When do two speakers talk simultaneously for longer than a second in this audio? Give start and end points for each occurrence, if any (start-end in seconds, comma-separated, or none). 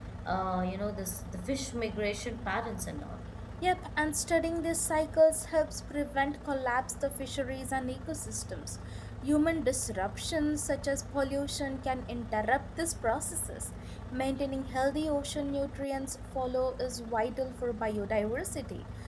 none